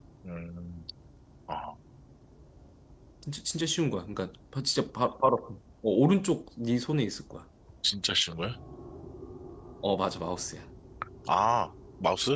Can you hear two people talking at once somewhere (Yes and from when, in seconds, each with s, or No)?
No